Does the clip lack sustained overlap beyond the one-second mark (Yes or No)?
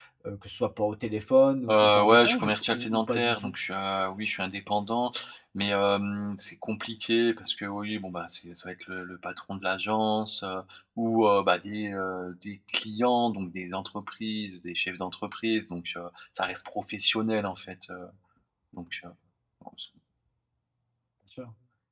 No